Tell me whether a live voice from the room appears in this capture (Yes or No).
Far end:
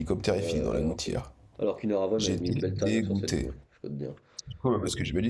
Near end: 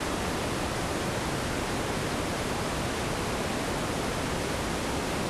No